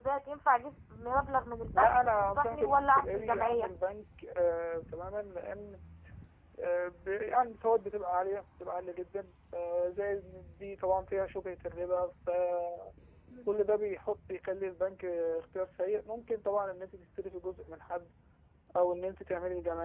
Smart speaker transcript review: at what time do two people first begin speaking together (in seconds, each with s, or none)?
1.7 s